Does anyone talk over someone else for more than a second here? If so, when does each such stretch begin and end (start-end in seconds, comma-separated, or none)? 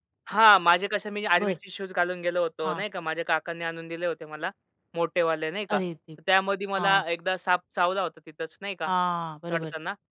none